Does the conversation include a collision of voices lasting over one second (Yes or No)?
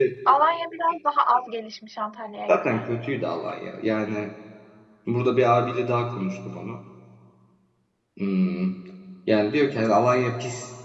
No